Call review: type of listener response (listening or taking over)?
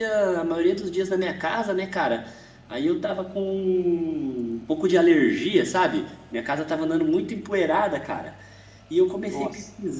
listening